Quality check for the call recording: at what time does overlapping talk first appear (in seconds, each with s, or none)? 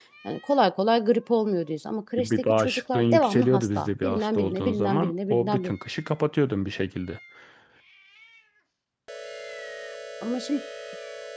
2.2 s